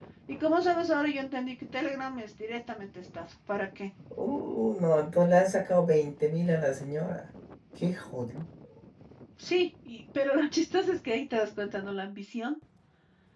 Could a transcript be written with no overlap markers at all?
Yes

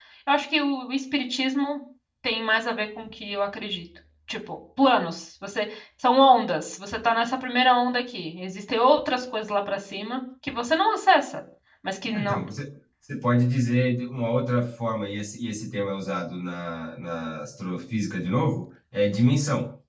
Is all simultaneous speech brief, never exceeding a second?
Yes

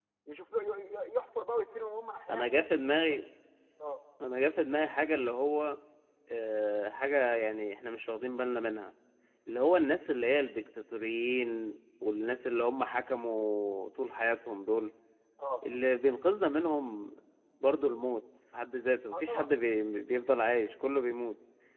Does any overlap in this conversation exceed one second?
No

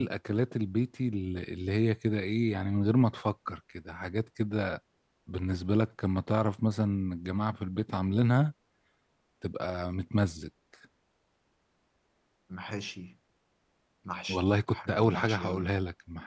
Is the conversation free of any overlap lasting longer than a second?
No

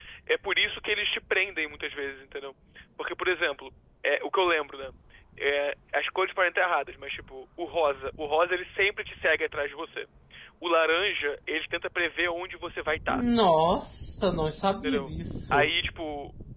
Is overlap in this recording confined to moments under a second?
Yes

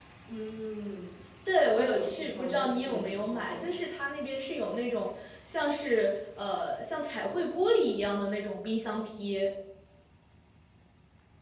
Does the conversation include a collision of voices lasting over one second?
Yes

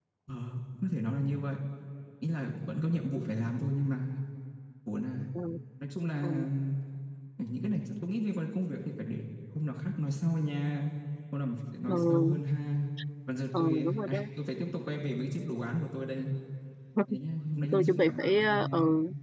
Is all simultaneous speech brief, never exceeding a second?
No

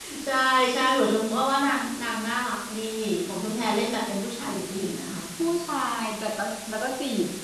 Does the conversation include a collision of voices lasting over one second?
No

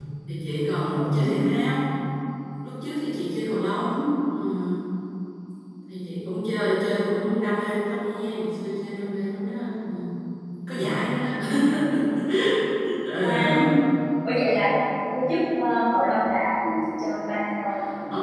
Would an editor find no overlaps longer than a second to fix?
Yes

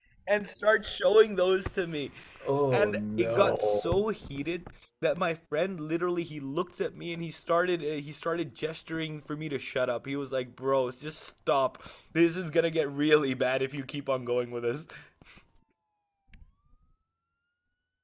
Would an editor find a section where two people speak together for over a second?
Yes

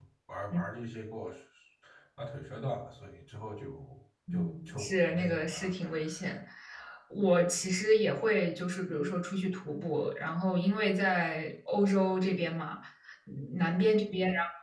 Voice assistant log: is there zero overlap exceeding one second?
No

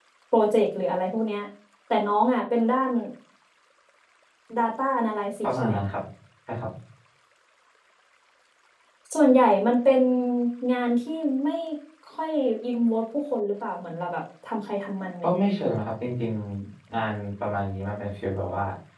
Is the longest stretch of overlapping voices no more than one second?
Yes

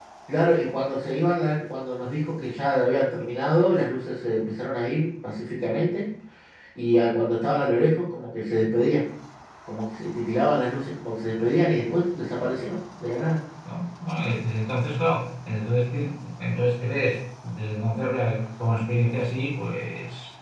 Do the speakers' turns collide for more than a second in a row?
No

